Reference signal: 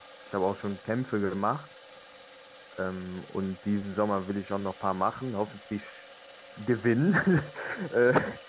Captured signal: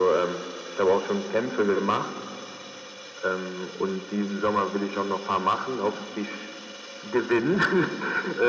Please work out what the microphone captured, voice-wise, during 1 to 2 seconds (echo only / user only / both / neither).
echo only